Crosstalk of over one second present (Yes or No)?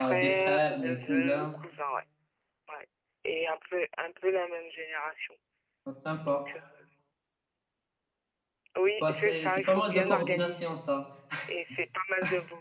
Yes